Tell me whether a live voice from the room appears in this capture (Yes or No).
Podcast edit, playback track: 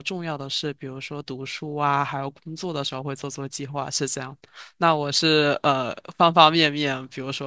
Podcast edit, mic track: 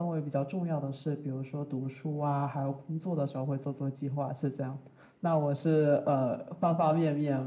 No